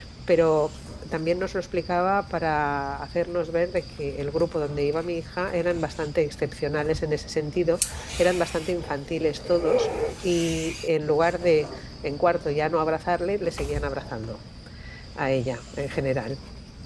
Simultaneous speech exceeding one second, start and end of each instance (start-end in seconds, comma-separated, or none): none